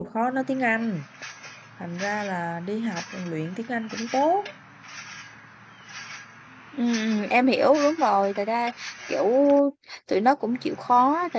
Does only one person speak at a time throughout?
Yes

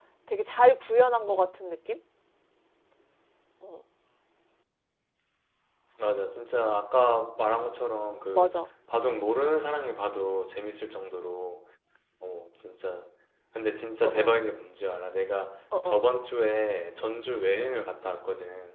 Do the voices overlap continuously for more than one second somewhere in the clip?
No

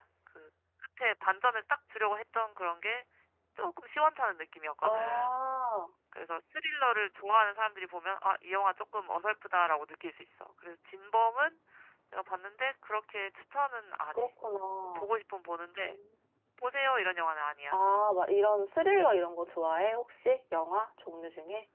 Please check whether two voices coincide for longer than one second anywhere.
No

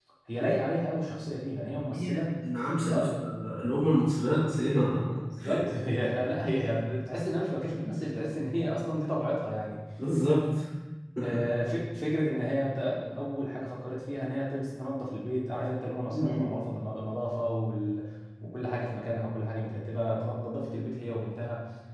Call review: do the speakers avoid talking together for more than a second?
Yes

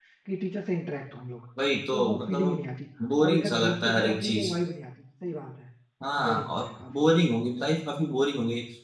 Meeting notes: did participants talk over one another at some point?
Yes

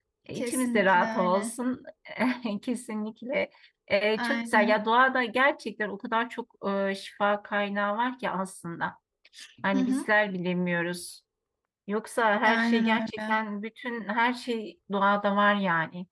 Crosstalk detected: Yes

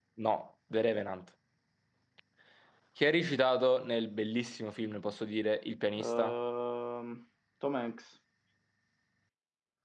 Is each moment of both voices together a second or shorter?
Yes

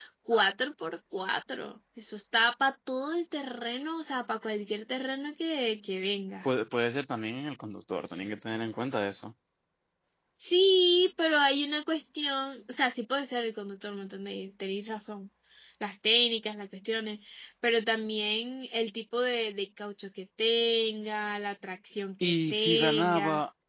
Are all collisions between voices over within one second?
No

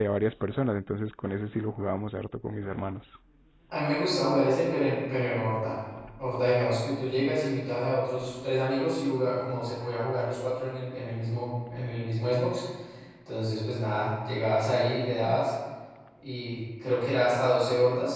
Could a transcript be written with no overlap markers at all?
Yes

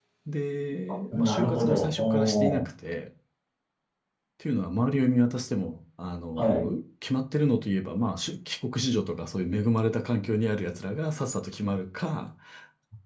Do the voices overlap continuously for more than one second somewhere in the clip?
Yes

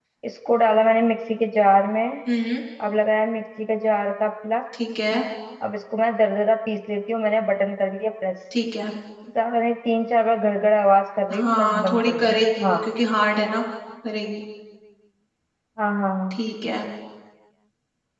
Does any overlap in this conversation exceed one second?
Yes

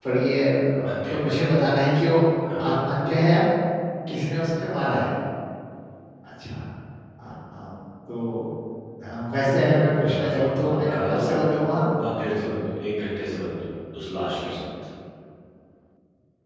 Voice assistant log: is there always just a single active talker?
No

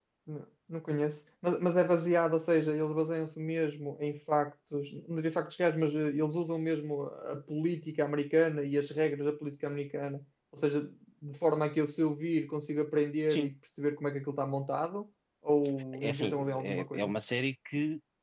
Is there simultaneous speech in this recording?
Yes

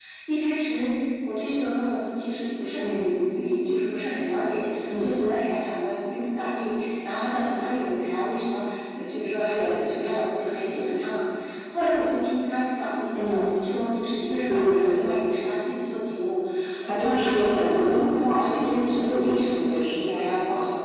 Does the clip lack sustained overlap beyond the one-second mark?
No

